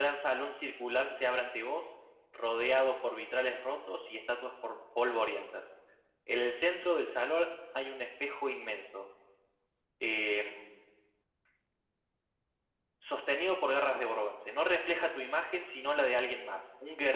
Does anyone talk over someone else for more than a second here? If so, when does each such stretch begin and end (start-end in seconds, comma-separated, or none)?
none